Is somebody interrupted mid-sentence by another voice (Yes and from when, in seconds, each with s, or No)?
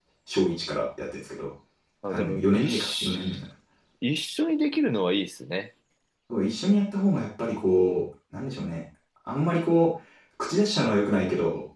Yes, from 2.1 s